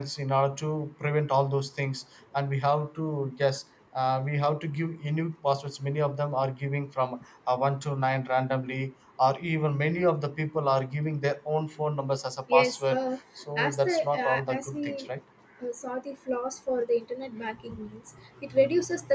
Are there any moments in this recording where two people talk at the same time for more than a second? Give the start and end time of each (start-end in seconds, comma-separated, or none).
13.6-15.0